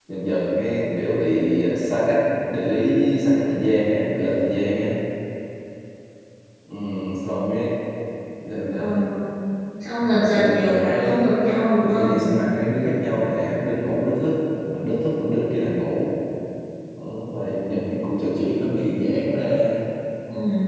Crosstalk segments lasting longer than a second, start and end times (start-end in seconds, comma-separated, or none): 10.0-11.3